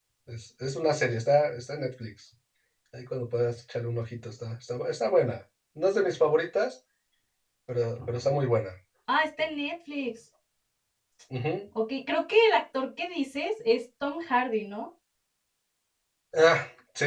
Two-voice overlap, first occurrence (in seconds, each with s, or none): none